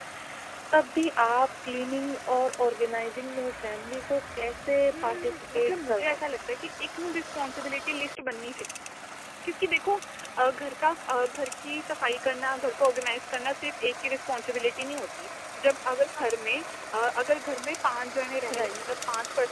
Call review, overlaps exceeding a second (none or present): present